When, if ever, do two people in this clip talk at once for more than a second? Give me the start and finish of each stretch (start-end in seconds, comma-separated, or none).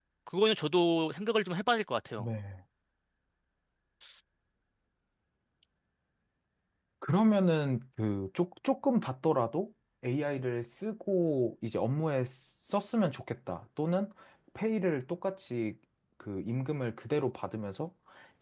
none